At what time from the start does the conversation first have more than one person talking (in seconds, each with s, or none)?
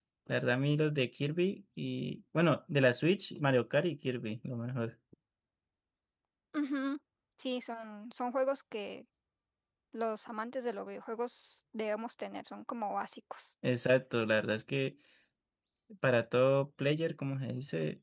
none